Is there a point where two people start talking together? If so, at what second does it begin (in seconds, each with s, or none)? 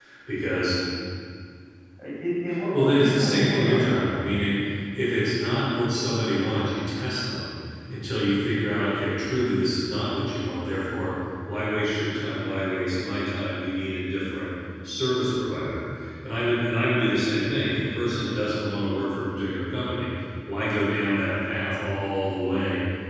2.7 s